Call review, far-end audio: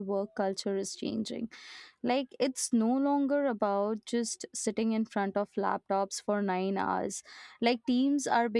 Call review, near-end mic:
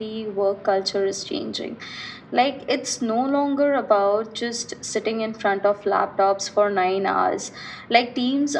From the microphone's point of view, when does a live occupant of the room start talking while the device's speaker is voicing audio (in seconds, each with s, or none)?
none